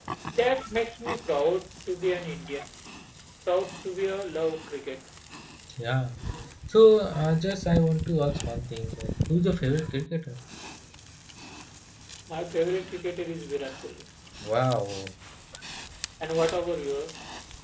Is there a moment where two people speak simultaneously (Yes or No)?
No